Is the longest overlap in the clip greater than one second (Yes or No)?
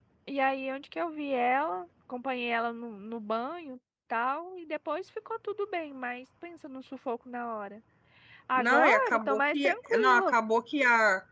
Yes